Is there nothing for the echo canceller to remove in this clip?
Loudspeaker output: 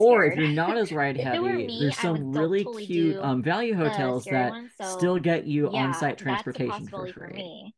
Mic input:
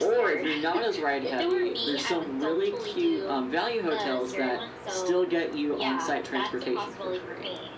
No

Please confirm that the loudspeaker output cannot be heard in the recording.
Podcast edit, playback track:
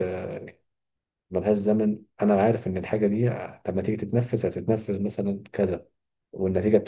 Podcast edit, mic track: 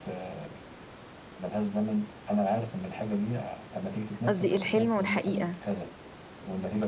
No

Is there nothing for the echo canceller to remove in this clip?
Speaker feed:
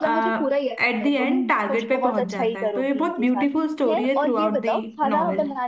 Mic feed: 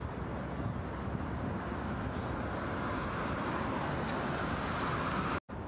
Yes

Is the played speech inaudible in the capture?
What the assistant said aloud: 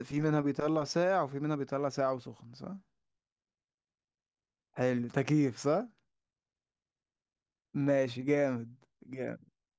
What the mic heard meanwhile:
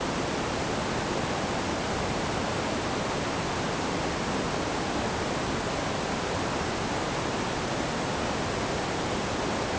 Yes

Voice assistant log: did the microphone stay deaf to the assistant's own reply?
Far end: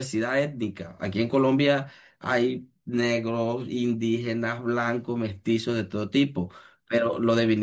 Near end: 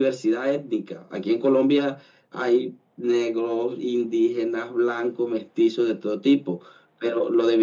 No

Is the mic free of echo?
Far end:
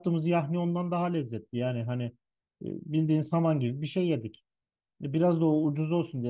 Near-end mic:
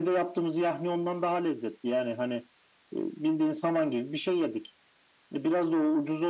No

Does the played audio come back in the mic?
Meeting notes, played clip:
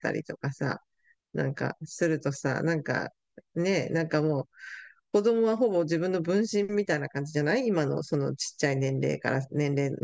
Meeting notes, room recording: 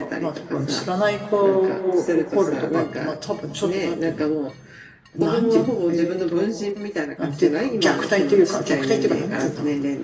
Yes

